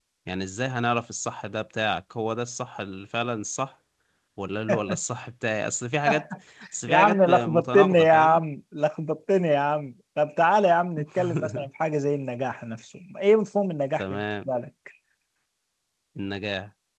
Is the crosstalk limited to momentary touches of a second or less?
No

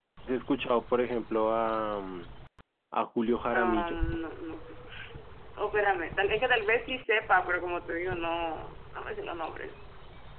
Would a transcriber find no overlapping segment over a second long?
Yes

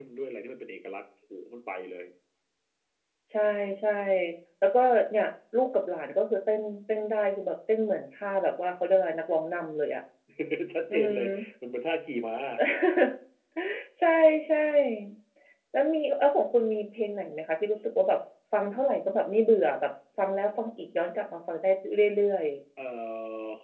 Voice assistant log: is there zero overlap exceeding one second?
Yes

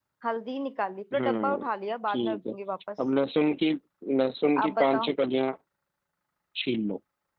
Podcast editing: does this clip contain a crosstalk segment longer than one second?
No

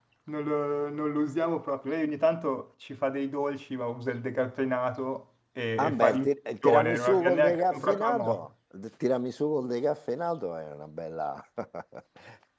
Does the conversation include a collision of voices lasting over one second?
Yes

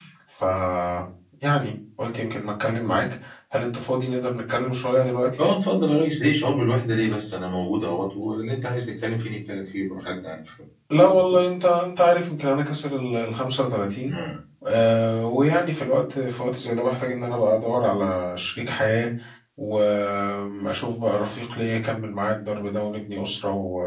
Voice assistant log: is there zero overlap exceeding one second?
Yes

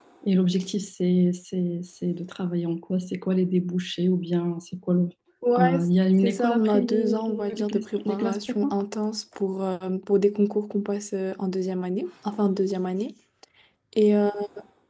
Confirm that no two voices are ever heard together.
No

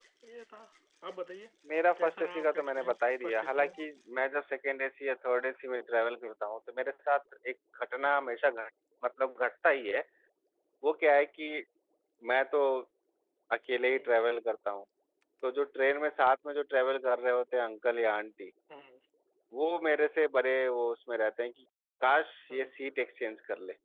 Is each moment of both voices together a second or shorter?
No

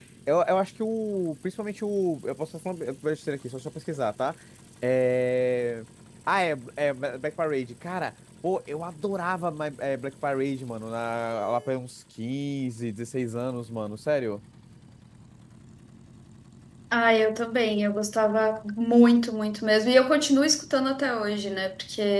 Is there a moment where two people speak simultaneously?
No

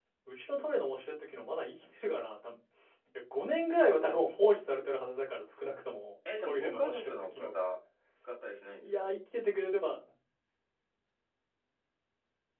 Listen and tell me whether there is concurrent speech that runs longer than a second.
Yes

